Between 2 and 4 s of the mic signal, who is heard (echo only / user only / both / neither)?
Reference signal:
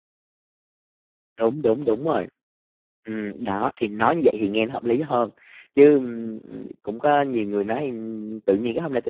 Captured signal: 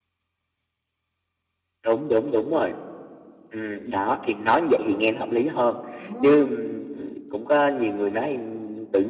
echo only